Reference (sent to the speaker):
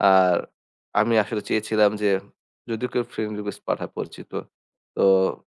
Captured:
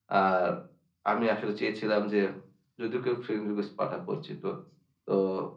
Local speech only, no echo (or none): none